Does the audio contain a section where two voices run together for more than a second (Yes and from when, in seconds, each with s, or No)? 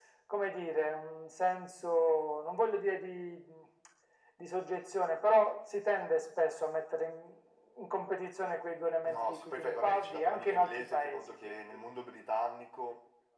Yes, from 9.0 s